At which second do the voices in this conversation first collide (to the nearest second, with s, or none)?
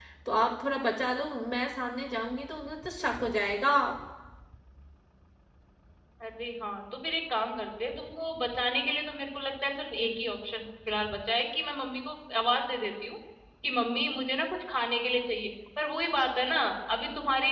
none